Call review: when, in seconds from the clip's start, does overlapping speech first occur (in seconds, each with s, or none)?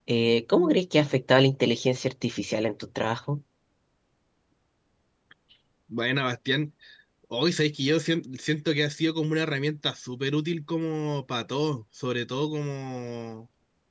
none